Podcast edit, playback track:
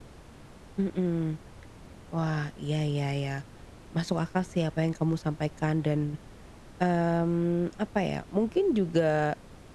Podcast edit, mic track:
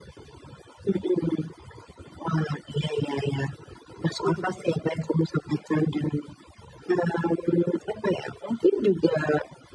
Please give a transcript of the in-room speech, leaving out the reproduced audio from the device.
Betul betul,

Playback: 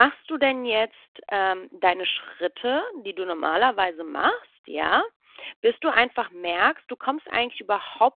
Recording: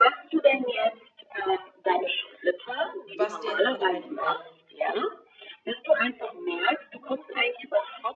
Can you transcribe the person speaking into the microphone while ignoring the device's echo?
was dir jetzt grade einfällt.

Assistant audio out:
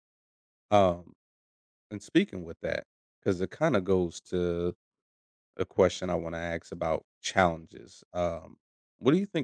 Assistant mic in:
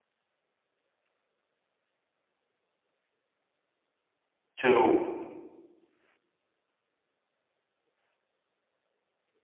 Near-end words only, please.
to

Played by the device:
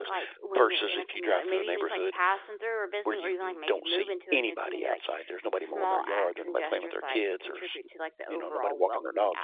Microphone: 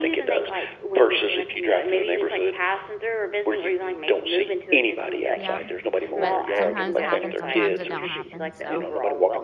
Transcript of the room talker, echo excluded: Yeah, but sometimes it happens, sometimes it don't happen, so,

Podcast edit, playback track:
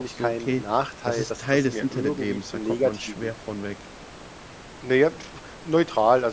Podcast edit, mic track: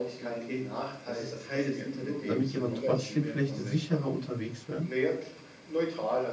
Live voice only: damit die aber trotzdem vielleicht sicherer unterwegs wären?

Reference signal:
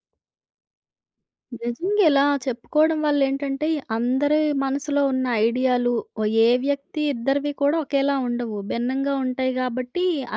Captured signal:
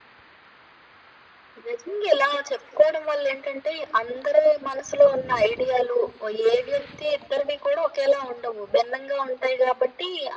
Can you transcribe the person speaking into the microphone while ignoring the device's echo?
none

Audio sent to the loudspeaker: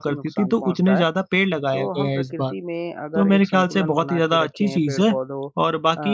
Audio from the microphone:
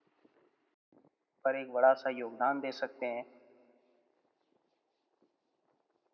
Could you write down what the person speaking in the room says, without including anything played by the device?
पर एक बड़ा-सा योगदान दे सकते हैं।

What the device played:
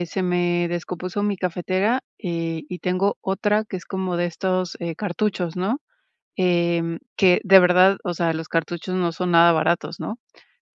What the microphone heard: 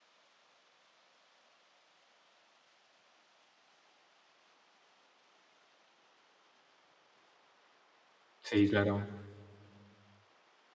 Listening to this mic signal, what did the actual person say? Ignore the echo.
Sí, claro.

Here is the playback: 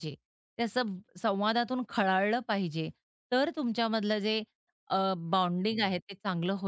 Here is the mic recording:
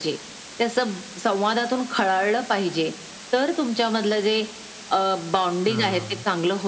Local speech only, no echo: हां.

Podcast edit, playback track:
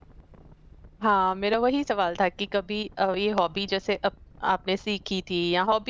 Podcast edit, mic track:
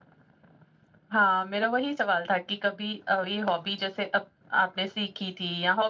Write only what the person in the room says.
none

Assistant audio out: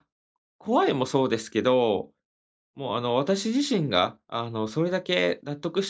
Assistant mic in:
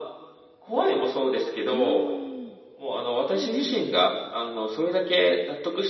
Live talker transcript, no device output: うーん。うんうん。

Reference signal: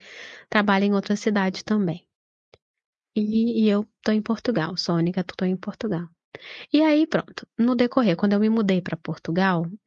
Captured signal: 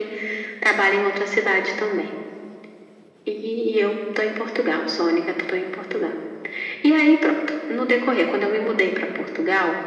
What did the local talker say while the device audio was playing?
none

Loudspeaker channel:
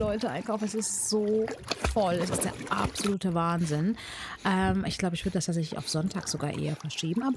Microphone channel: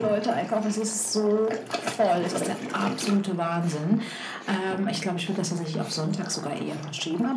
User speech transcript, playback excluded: none

